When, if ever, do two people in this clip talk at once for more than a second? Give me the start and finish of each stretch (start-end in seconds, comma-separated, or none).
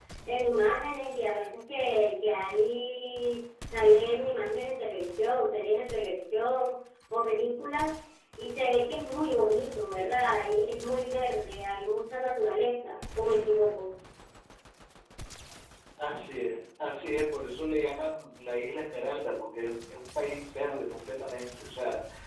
none